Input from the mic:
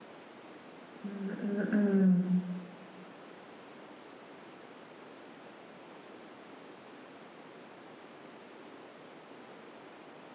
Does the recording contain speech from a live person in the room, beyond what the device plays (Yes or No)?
Yes